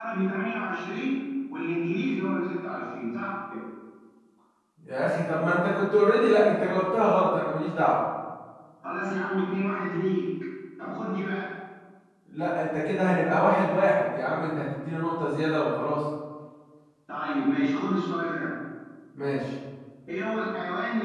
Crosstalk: none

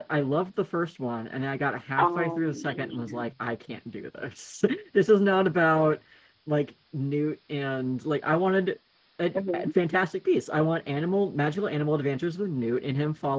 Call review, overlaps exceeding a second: present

